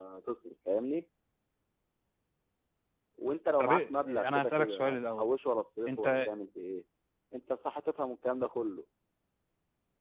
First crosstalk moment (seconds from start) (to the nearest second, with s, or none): 4 s